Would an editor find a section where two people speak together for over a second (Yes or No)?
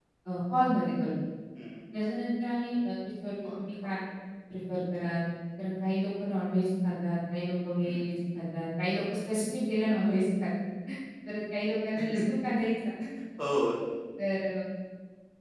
No